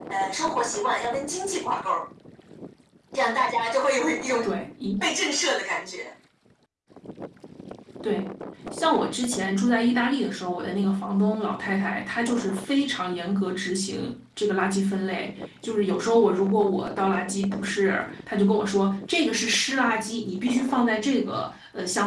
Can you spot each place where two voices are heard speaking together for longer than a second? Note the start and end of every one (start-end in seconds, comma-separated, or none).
none